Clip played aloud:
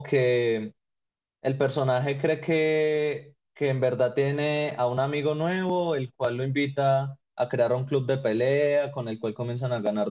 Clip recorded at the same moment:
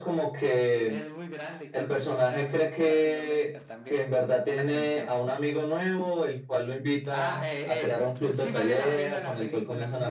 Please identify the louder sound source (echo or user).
echo